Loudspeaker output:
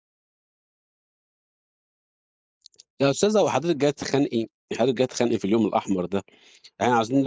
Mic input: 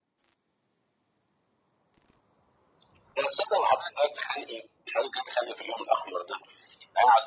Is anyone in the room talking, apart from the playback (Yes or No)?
No